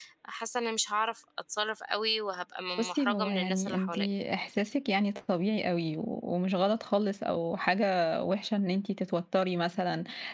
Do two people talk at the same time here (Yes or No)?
Yes